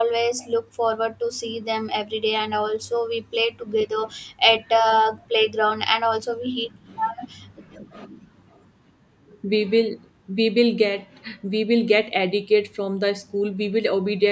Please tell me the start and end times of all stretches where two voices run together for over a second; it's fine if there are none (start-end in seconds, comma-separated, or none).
none